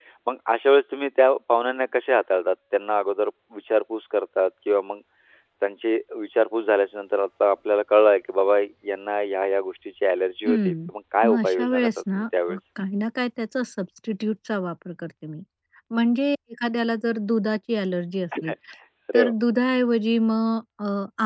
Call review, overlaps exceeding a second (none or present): present